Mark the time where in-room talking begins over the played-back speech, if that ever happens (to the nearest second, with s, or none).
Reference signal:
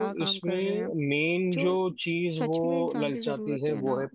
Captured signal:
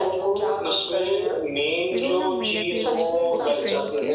2 s